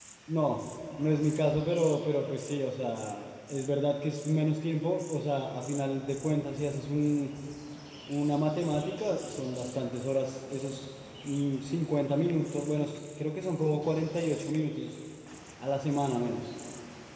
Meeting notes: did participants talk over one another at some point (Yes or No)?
No